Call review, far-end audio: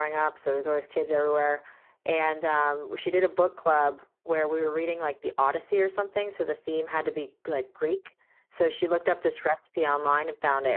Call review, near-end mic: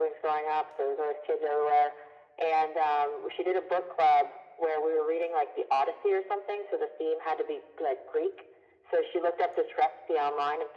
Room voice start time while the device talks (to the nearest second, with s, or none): none